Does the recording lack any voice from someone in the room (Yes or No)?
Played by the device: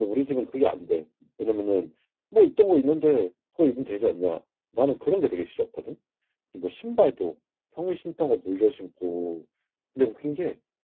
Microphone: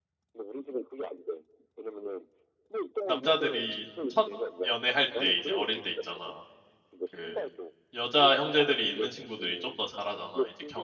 No